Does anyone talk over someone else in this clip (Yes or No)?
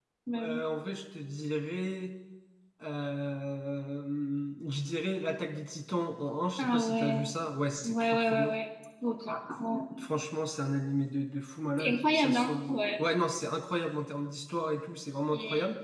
Yes